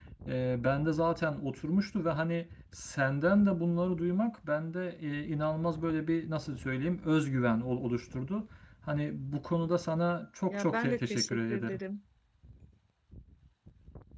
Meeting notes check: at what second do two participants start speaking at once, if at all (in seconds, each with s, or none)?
10.5 s